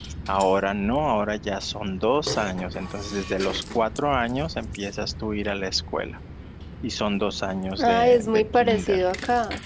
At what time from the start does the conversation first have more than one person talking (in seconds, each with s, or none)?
7.8 s